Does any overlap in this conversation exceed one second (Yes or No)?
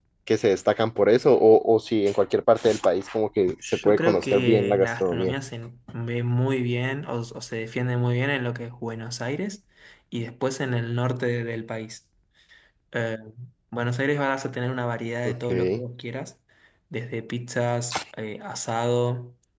Yes